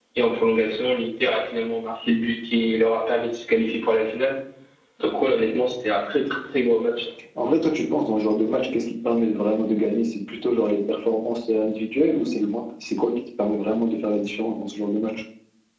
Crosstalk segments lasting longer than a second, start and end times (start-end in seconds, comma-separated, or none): none